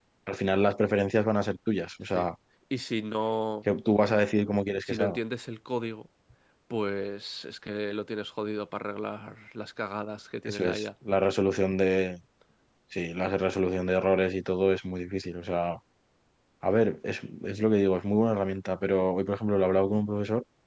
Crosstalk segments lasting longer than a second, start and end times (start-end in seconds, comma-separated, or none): none